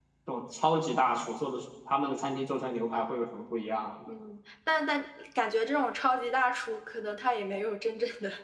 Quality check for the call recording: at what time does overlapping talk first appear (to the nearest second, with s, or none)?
none